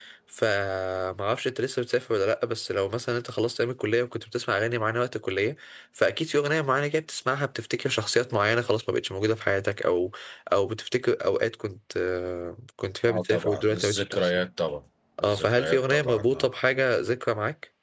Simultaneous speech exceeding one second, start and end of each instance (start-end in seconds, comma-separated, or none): 13.1-14.4, 15.2-16.5